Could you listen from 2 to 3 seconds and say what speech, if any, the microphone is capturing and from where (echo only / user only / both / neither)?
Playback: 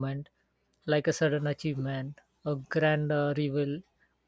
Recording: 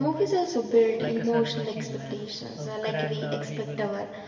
both